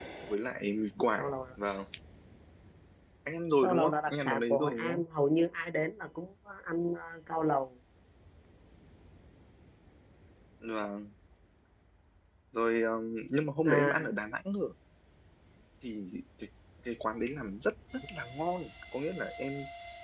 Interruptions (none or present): present